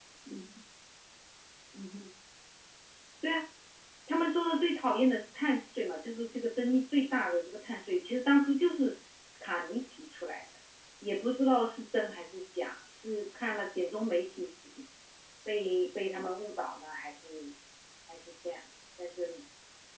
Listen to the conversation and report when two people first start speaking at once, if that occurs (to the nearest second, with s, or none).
none